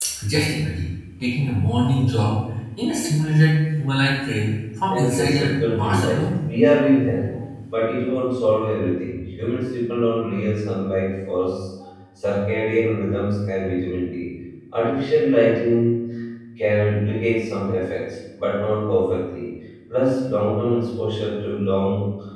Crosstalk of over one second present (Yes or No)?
Yes